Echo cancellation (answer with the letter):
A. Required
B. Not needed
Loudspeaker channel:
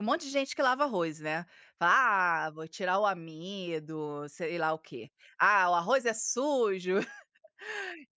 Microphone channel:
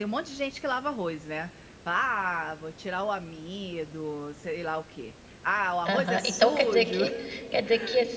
A